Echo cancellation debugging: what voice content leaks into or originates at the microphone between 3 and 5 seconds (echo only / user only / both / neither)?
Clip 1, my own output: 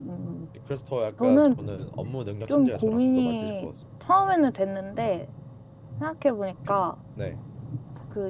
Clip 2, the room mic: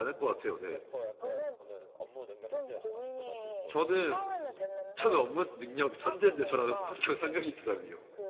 both